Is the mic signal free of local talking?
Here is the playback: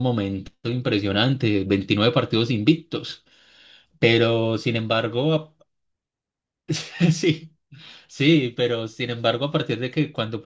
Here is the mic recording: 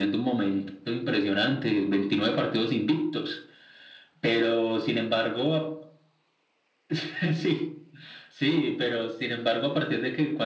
Yes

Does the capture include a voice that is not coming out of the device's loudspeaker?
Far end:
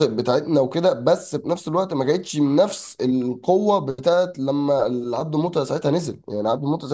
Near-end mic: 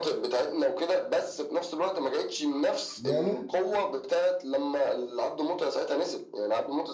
Yes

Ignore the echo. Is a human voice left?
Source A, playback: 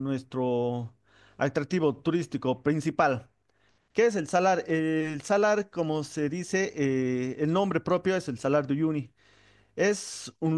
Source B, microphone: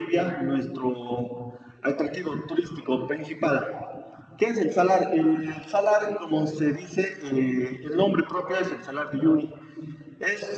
No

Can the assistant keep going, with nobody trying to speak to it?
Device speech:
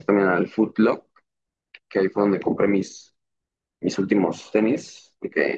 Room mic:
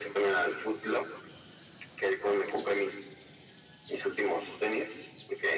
Yes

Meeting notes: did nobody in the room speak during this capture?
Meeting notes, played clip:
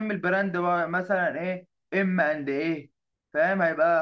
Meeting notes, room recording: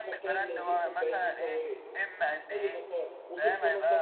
No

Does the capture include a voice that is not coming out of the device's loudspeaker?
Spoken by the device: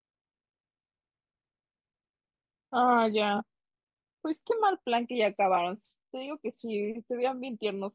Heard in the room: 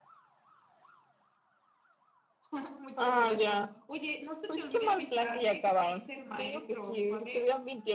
Yes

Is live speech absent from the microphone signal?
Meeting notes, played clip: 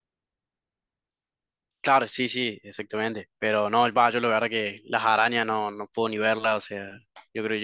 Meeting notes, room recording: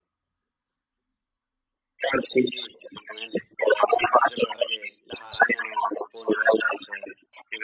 Yes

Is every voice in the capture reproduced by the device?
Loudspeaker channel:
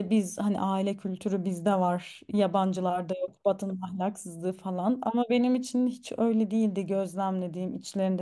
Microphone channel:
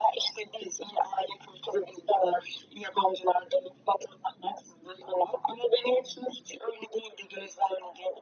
Yes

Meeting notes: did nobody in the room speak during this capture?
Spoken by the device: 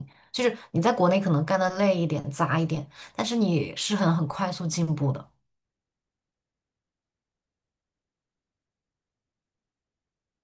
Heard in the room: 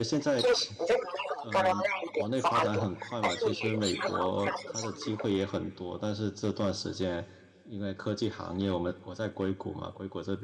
No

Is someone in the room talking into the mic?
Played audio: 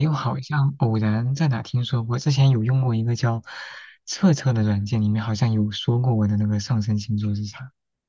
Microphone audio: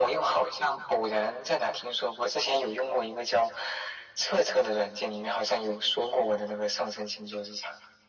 No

